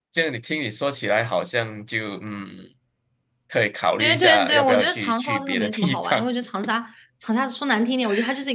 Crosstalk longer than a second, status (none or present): present